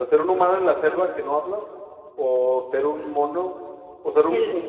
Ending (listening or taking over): listening